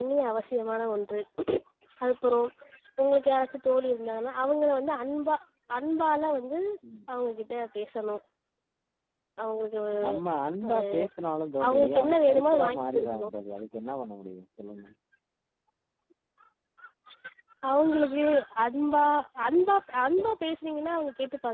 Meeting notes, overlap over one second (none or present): present